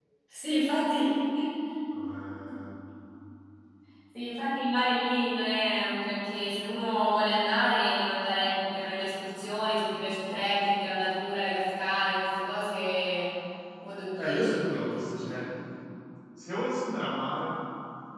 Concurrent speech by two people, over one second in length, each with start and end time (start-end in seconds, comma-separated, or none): 14.2-15.4